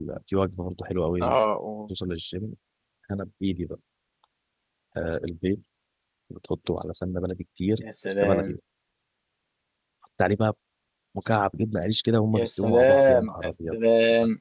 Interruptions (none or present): present